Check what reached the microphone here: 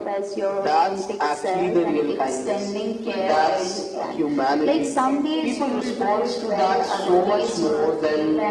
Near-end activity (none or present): present